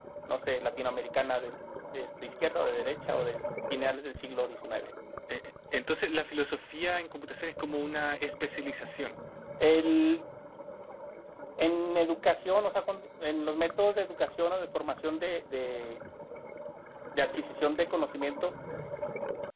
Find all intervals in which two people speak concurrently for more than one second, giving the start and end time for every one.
none

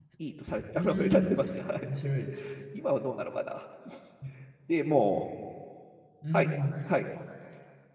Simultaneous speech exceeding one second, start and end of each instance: none

